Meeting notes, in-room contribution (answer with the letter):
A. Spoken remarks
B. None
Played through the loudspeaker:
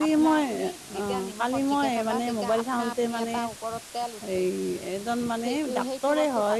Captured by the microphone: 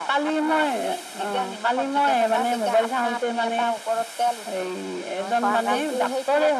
A